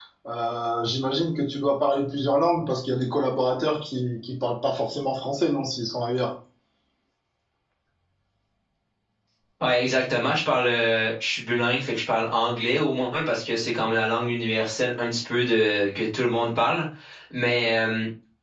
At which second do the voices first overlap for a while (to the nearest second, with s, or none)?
none